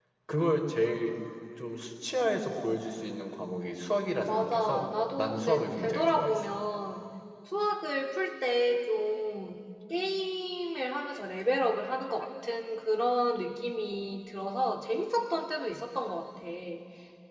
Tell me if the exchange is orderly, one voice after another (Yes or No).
No